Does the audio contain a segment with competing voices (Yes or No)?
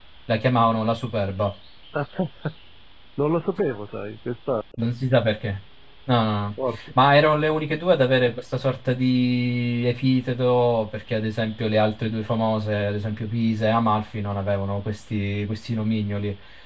No